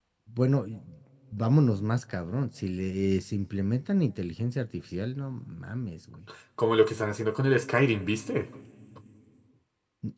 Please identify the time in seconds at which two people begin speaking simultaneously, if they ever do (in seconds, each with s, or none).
none